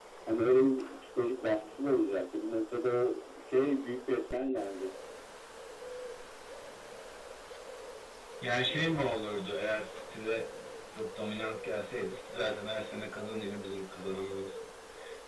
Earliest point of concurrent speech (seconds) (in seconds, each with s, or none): none